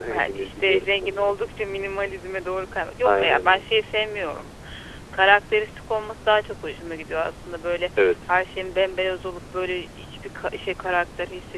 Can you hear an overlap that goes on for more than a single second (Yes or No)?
Yes